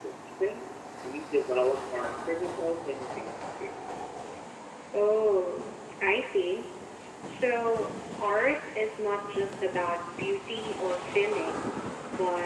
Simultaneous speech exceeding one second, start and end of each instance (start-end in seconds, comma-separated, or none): none